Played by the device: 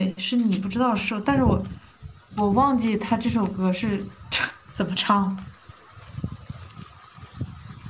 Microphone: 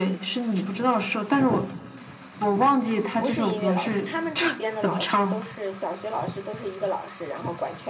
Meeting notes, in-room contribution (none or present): present